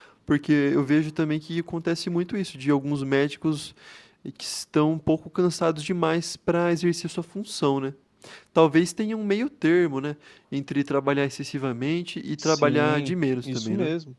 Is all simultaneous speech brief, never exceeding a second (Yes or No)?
No